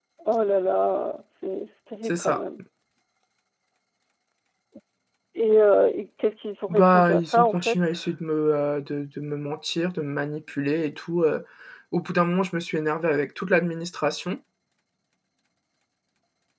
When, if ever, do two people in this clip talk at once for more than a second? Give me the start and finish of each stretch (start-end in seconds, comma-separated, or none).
6.7-8.1